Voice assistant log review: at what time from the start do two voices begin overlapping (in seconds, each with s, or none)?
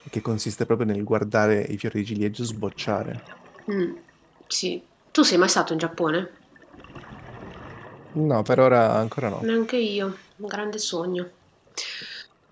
none